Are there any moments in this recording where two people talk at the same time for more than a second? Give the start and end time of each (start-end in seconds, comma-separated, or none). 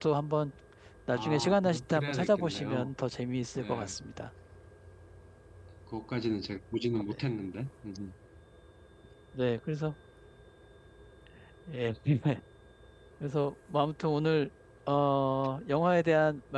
1.1-2.9